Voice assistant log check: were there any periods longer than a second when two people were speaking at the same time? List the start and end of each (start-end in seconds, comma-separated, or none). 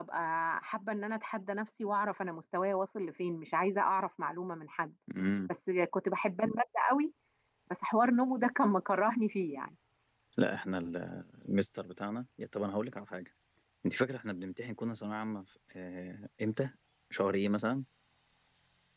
none